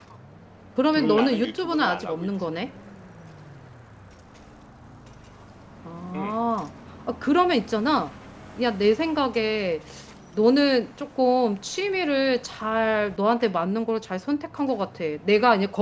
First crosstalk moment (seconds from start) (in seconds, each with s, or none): 1.0 s